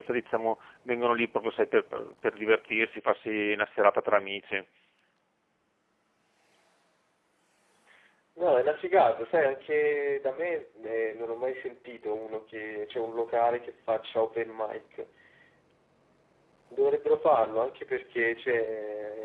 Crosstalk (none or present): none